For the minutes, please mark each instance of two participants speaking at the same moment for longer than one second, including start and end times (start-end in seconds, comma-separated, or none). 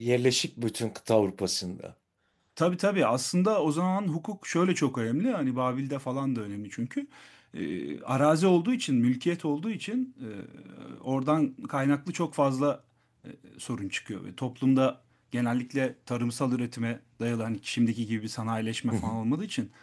none